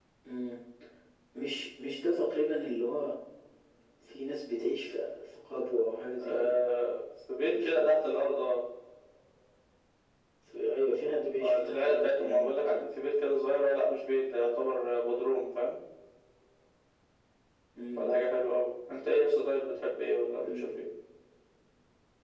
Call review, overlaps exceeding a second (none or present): present